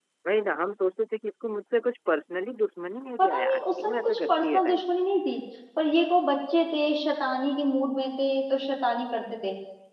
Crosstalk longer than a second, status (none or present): present